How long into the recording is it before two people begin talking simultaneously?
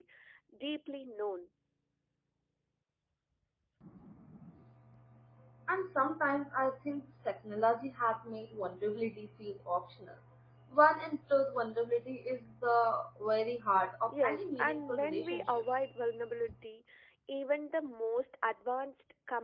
14.1 s

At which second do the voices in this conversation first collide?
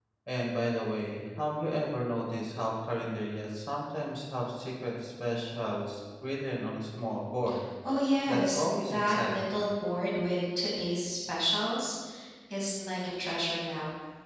8.3 s

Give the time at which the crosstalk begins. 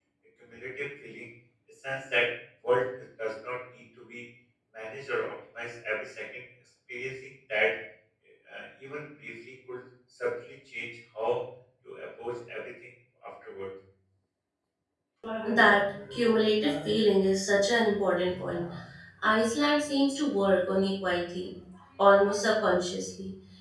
none

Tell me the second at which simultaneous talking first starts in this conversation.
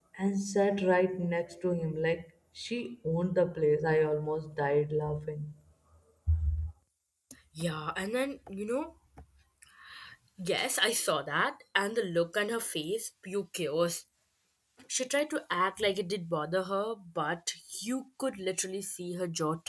none

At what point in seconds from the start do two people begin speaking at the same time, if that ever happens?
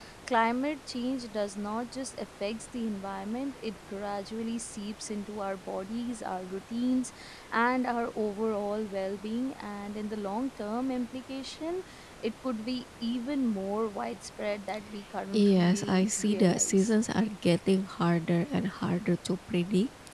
15.3 s

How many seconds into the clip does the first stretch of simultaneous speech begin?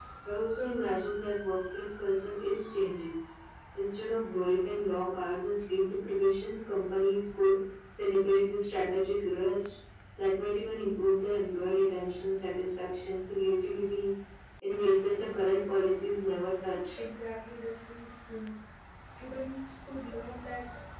none

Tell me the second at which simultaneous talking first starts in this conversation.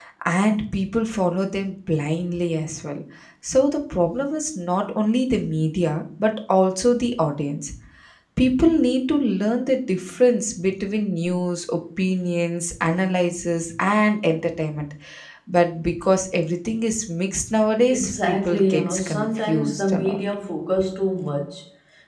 17.9 s

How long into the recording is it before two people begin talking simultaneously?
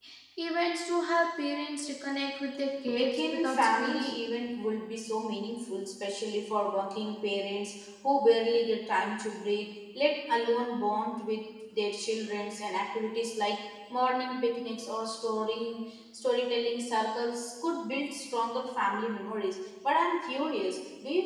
2.9 s

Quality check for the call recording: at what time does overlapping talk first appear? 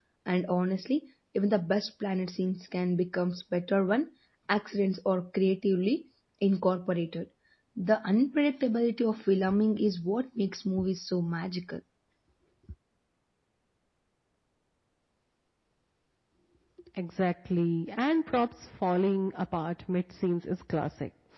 none

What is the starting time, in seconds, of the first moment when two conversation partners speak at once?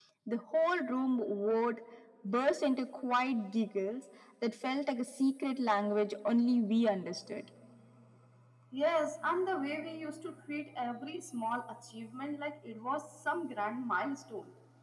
none

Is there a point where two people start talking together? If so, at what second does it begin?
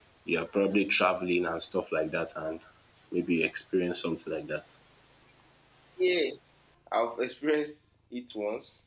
none

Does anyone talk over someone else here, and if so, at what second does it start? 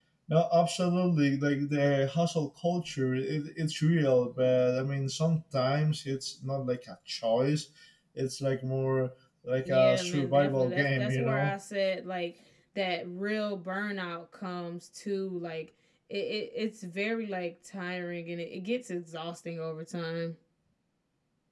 9.7 s

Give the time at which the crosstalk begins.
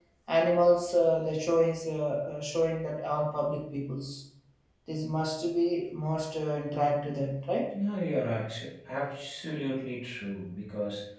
none

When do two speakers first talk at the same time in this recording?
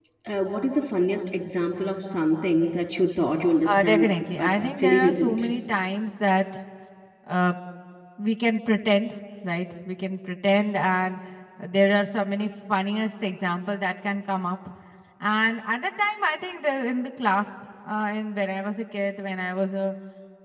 3.6 s

